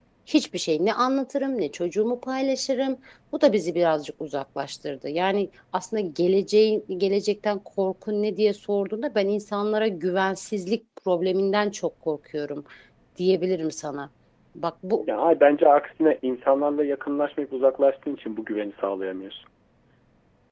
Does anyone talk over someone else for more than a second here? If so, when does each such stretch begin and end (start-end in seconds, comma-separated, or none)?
none